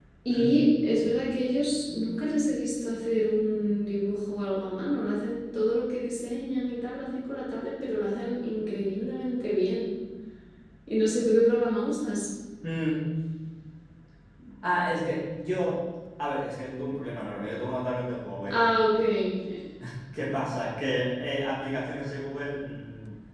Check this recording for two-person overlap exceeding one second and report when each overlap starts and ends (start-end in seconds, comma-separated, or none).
none